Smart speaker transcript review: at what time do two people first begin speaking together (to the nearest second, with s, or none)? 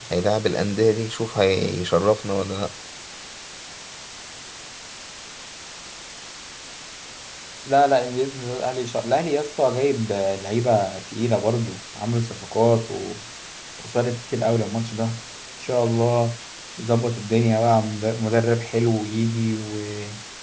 none